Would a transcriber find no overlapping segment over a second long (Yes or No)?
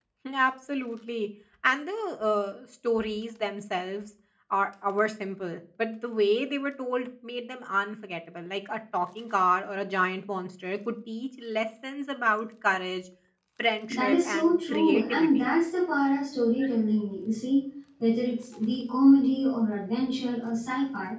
No